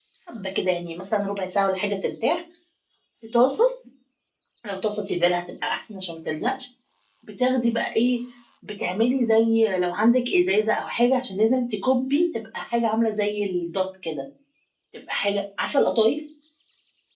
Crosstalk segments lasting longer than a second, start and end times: none

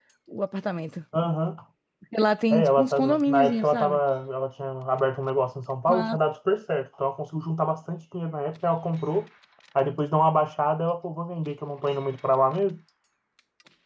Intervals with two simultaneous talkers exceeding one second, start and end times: 2.5-4.0

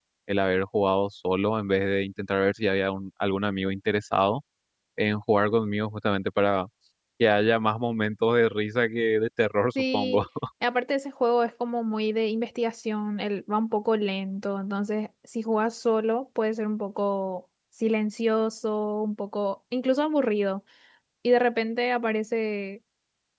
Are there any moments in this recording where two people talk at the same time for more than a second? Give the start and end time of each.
none

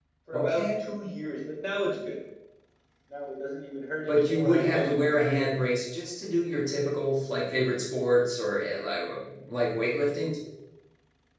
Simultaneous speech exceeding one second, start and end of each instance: 4.1-5.5

